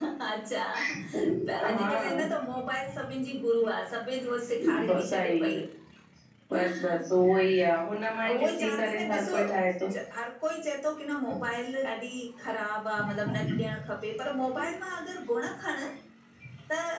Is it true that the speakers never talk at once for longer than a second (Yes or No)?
No